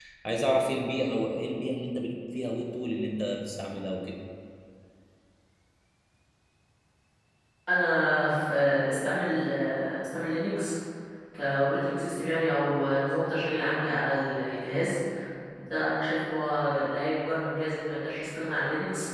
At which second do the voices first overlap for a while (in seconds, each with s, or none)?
none